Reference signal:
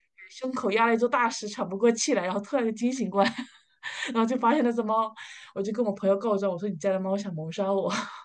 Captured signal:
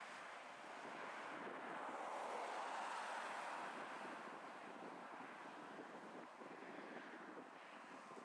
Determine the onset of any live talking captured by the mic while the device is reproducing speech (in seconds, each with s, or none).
none